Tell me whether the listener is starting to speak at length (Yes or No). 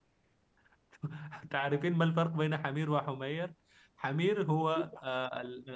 No